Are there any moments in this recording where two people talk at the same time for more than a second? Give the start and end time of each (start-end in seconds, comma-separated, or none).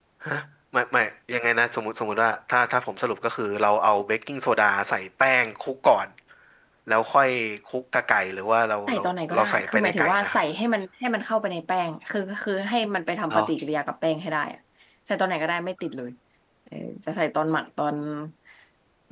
8.9-10.4